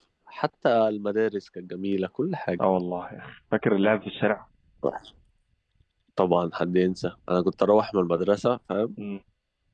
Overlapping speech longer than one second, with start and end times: none

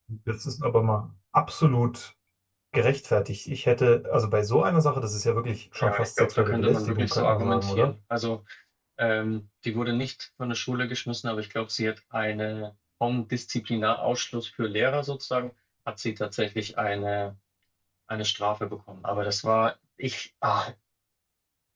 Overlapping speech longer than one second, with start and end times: 5.8-7.9

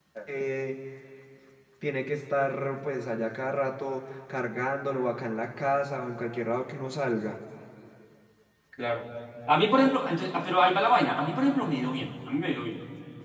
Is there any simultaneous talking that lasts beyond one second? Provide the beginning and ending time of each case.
none

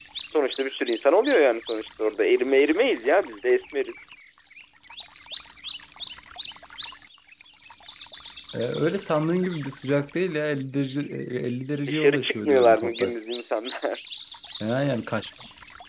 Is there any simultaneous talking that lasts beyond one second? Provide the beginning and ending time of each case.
11.8-13.2

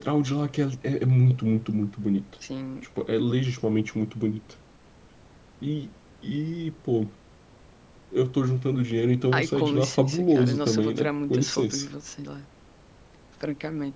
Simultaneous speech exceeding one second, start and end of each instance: 9.3-11.8

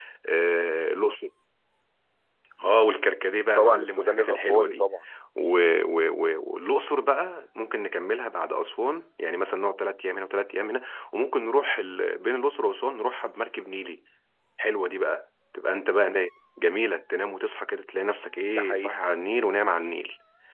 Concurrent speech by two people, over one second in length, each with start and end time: 3.6-4.8

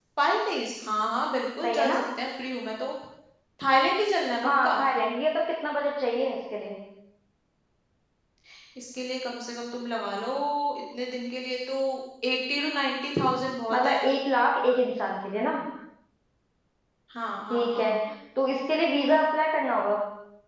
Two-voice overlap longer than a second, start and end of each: none

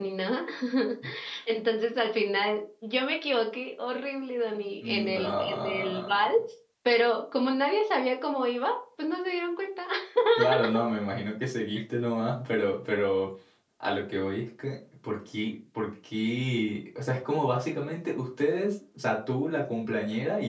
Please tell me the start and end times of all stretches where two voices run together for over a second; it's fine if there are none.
4.8-6.4

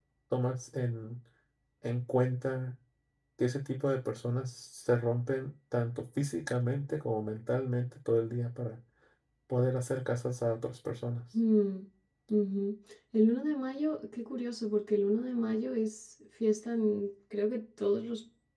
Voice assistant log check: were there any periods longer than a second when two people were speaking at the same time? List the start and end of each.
none

